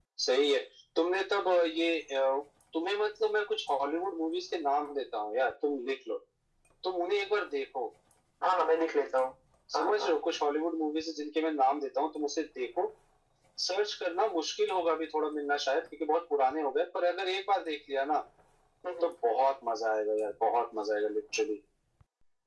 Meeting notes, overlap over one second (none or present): none